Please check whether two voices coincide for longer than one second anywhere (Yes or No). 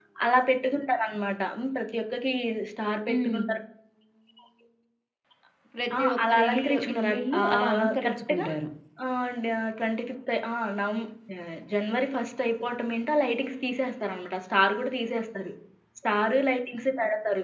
Yes